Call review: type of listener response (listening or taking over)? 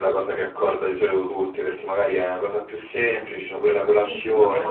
taking over